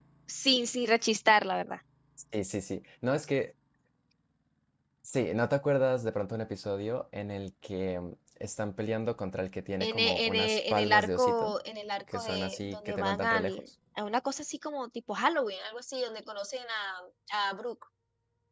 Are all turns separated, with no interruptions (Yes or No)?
No